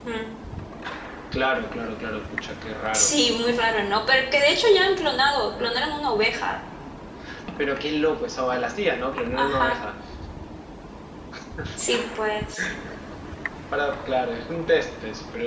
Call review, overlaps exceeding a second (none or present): none